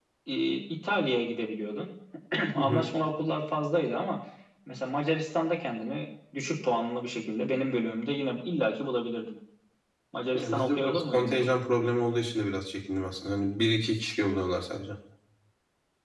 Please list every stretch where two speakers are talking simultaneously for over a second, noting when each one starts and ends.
10.4-11.6

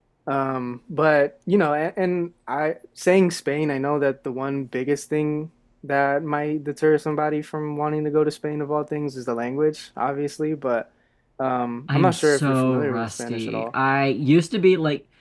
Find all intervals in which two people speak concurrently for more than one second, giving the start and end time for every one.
11.9-13.7

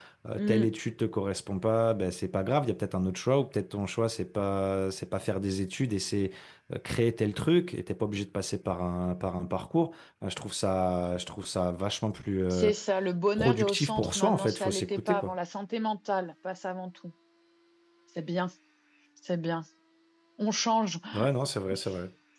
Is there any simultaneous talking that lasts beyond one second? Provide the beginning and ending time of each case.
13.3-15.4

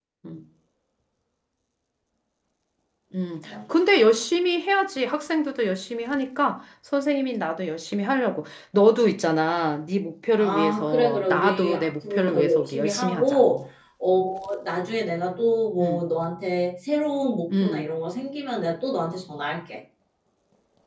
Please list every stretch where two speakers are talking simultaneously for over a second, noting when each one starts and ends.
10.4-13.4

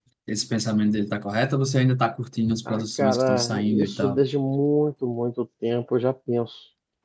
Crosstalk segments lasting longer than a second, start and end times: 2.7-4.2

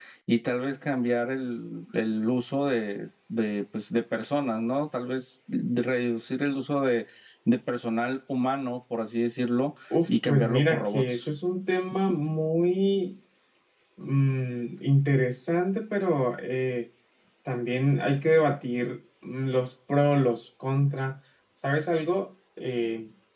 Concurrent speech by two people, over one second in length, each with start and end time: 10.1-11.3

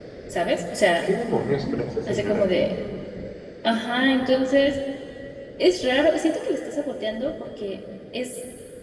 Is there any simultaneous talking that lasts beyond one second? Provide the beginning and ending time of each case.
none

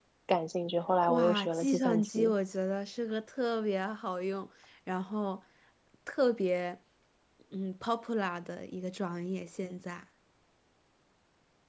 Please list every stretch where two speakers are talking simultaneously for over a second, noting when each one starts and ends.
1.1-2.3

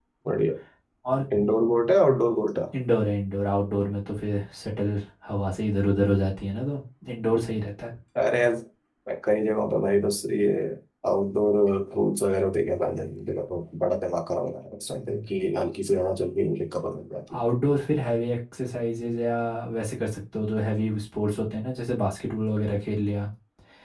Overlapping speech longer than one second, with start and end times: none

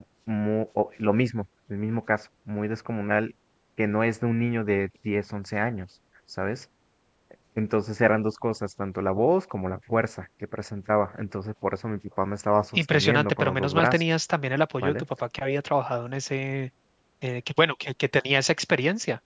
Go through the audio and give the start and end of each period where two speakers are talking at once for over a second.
12.8-14.0

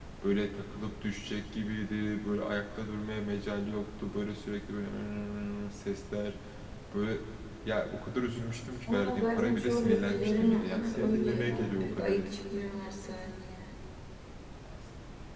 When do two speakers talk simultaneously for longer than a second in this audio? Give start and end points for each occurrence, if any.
8.9-12.3

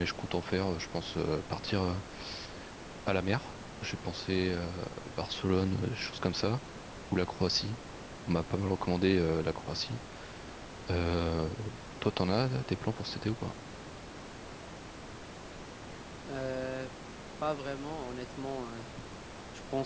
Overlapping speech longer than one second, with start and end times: none

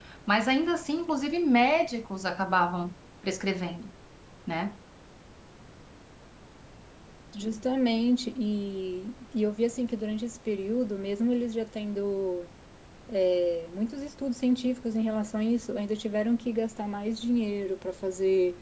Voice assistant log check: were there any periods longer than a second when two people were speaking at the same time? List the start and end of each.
none

